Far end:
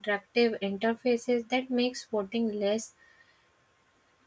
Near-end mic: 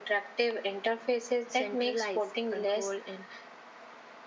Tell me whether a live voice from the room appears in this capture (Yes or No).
Yes